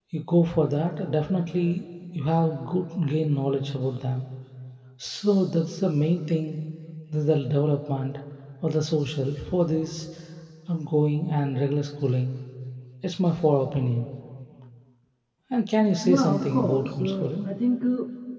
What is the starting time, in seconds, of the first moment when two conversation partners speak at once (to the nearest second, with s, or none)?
16 s